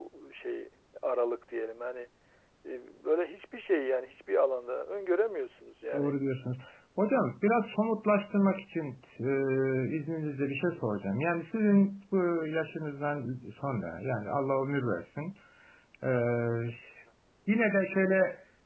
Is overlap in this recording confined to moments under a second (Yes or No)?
Yes